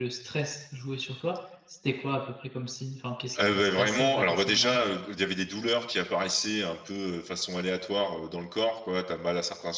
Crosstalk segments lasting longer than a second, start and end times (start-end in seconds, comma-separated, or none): 3.4-4.8